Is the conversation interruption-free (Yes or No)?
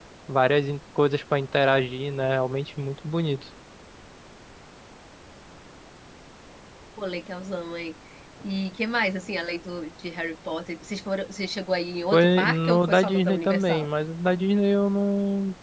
No